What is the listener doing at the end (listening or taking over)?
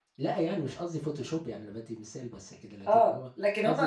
taking over